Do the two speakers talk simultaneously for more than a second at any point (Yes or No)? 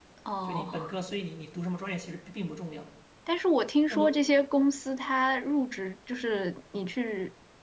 No